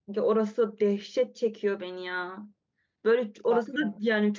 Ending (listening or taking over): listening